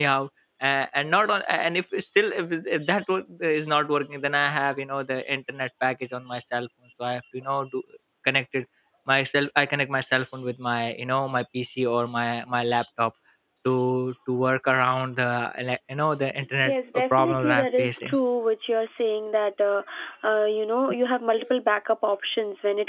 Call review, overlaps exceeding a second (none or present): present